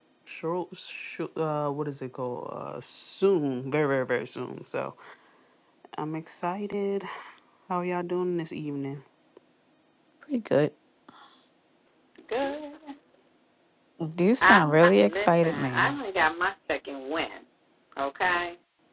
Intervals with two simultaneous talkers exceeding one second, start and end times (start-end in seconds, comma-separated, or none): 14.4-16.0